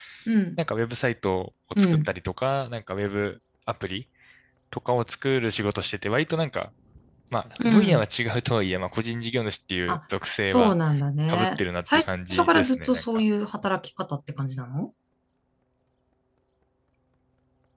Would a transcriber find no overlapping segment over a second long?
No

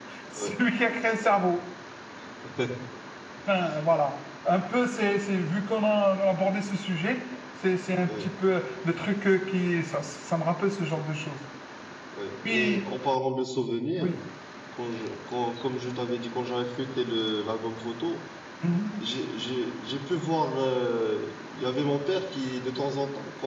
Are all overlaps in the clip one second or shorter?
Yes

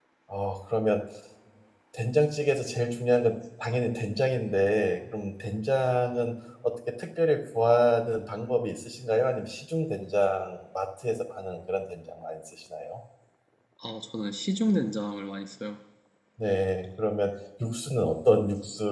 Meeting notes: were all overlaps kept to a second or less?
Yes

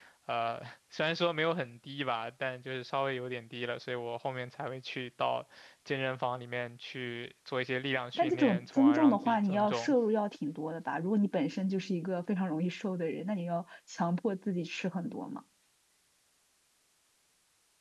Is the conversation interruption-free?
No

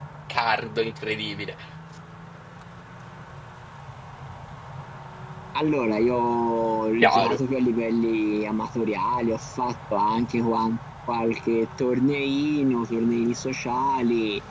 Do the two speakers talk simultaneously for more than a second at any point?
No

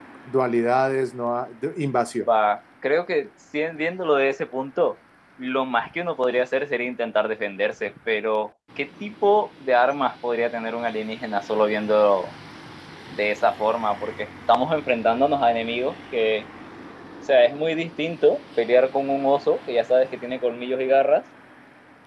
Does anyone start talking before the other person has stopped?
No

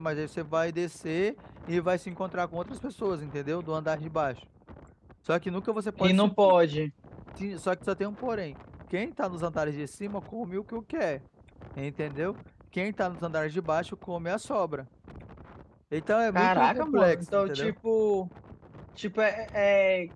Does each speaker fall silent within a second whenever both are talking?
No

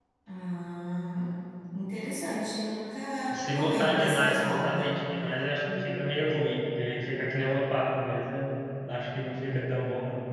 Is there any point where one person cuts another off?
Yes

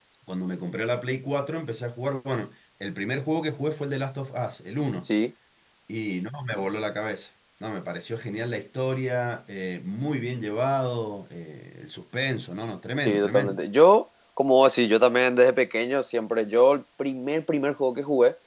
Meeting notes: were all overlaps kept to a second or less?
Yes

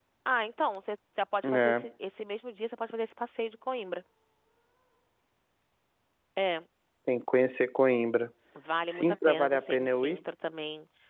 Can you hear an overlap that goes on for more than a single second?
Yes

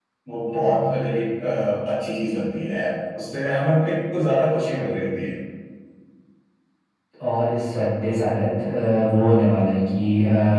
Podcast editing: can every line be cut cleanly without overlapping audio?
Yes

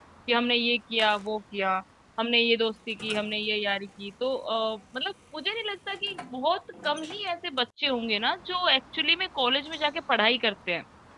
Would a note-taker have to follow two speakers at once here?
No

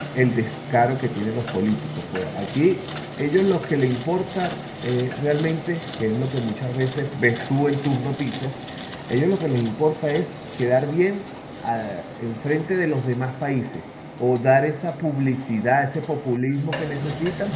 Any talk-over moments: No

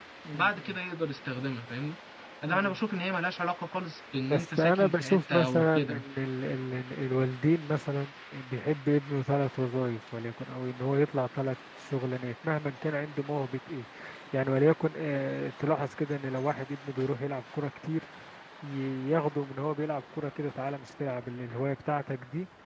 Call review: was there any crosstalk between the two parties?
Yes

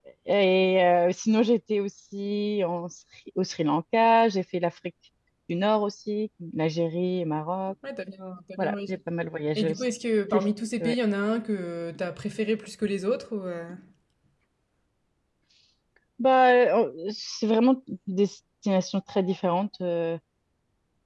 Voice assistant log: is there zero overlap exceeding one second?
Yes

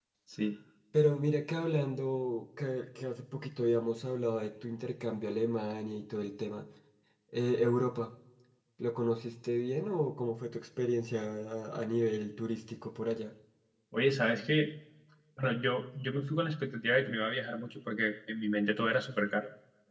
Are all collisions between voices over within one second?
Yes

